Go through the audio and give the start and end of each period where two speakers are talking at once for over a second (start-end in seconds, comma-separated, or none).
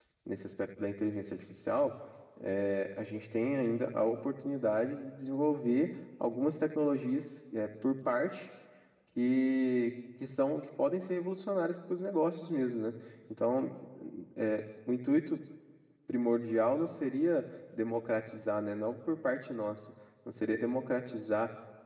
none